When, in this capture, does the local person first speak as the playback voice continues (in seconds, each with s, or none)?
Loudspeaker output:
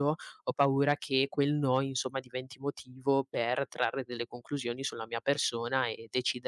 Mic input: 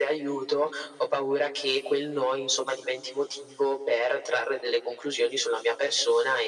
none